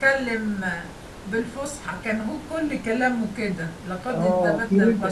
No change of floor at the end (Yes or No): No